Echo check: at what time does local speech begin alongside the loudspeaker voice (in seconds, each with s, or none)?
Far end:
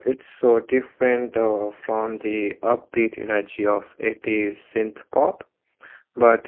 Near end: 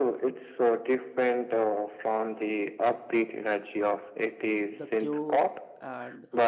4.7 s